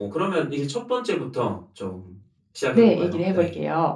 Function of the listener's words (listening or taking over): taking over